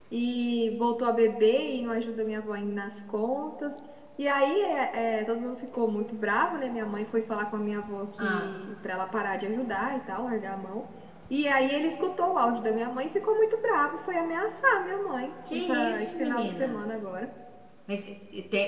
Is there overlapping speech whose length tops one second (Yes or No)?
Yes